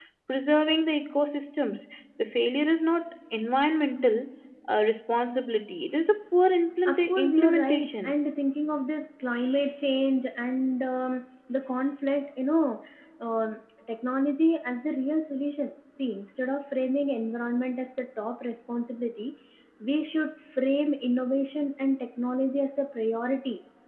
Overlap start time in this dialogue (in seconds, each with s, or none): 6.9 s